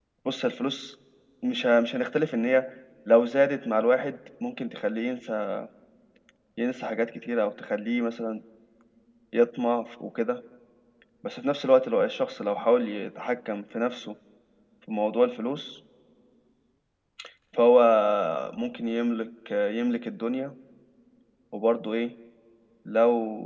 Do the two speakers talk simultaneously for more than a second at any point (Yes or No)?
No